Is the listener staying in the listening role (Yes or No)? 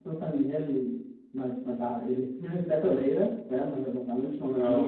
Yes